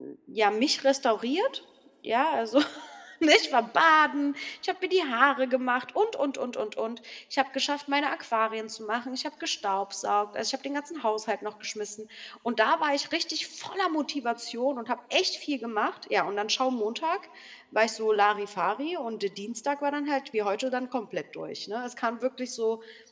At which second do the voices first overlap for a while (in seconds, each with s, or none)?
none